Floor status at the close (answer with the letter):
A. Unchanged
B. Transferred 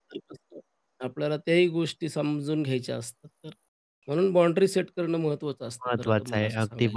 B